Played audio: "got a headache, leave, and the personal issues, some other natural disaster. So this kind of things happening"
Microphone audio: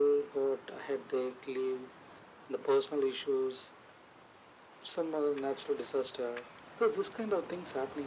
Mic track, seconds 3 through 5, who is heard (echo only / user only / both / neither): echo only